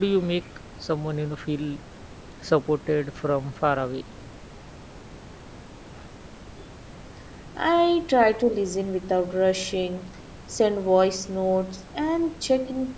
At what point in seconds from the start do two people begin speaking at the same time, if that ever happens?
none

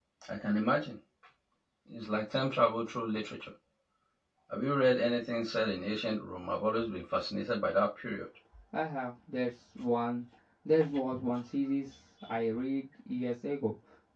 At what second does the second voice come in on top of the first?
none

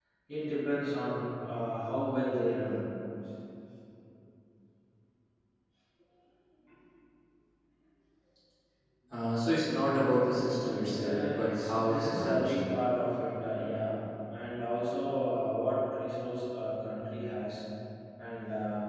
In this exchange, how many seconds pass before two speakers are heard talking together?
10.9 s

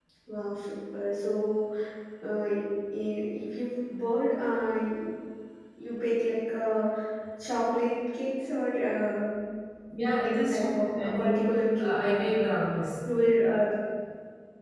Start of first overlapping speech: 10.2 s

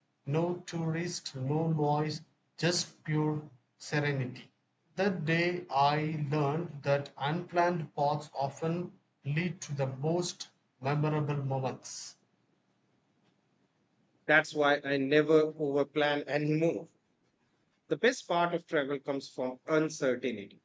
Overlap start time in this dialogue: none

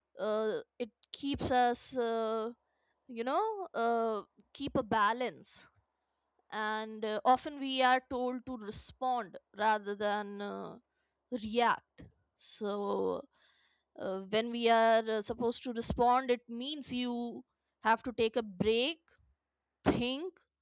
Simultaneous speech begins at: none

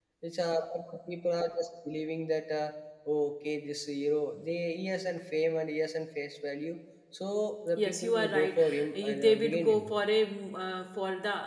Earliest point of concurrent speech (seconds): 7.8 s

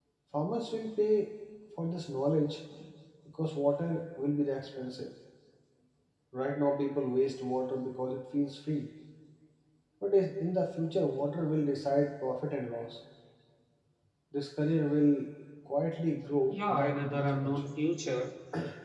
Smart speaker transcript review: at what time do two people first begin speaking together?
16.5 s

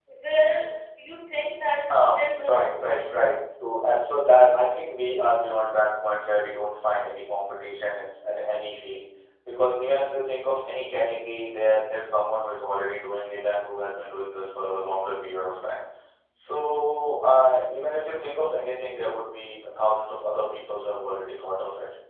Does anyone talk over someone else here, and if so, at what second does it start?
1.9 s

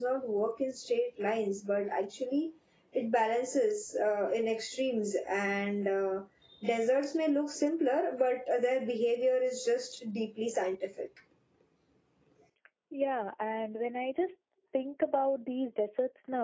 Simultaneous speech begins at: none

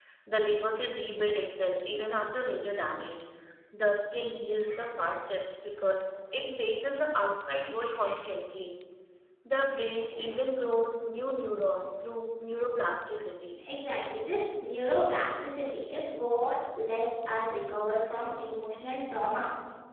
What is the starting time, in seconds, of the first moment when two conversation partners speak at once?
none

